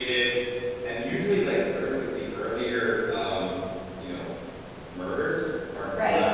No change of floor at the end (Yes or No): Yes